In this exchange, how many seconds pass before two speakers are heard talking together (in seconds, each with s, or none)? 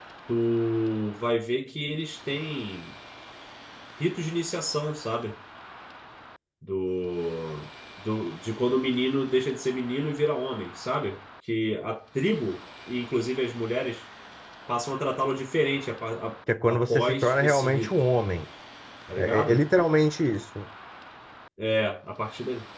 16.7 s